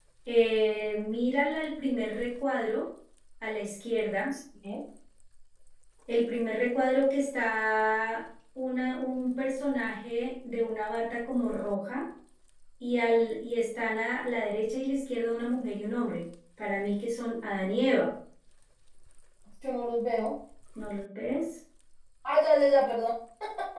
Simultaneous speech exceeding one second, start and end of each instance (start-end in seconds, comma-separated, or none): none